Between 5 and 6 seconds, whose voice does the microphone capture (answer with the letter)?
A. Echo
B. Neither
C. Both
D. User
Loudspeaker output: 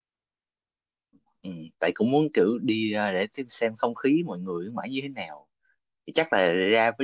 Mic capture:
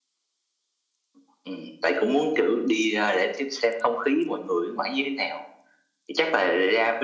A